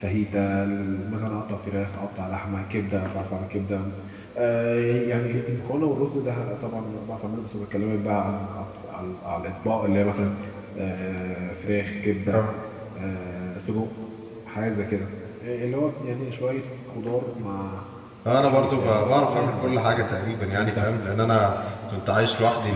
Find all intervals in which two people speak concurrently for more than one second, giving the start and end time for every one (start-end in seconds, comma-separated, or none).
18.4-20.2